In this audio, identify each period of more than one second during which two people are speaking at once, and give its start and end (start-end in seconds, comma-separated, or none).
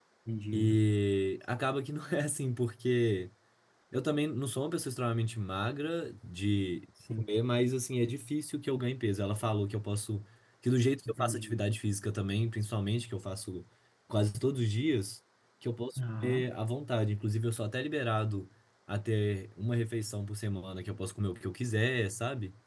none